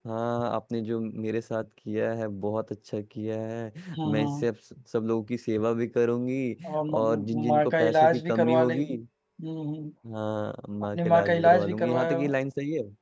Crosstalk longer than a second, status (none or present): present